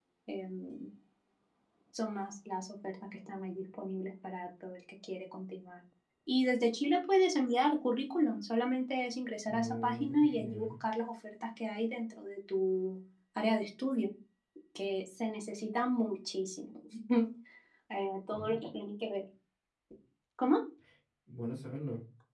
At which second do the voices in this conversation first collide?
9.5 s

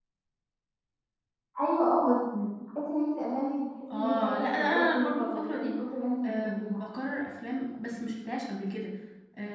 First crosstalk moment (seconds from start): 4.0 s

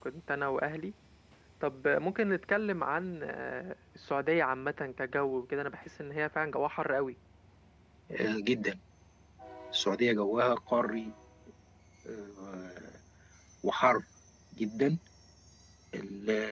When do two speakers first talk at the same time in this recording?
none

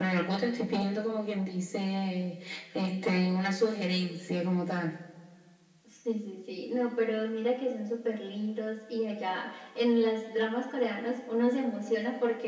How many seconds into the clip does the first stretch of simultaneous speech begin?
none

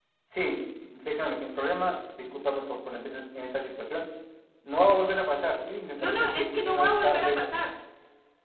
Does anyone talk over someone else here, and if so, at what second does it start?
6.0 s

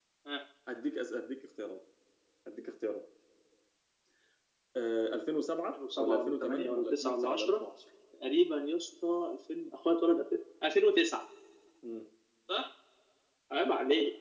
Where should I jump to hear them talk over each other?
5.7 s

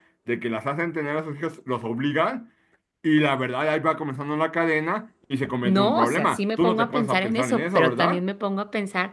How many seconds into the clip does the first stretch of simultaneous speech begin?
5.6 s

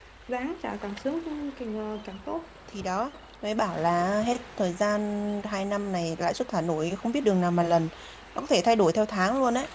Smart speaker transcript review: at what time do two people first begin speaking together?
none

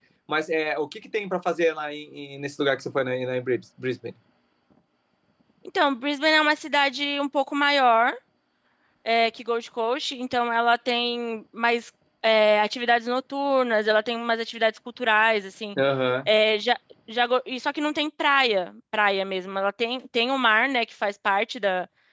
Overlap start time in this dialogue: none

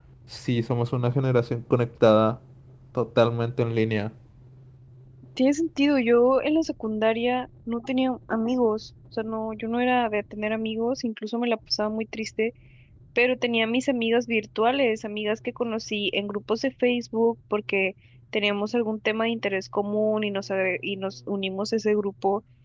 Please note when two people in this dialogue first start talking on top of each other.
none

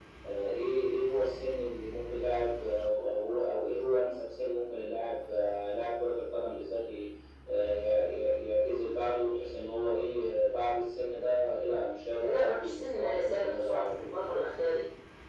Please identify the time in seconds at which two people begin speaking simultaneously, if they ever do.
12.1 s

